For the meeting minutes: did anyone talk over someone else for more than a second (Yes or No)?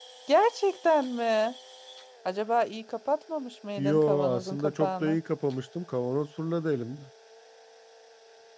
Yes